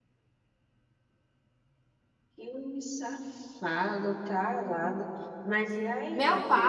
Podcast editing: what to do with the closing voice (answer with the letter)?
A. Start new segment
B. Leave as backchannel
A